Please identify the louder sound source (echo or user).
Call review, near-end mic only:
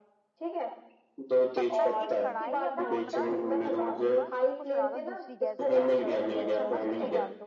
echo